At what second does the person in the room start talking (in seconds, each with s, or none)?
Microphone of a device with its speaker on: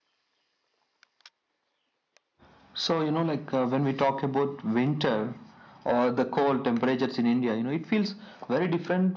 none